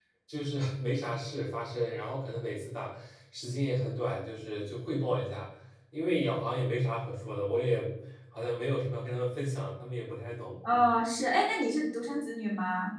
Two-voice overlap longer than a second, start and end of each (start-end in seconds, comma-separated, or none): none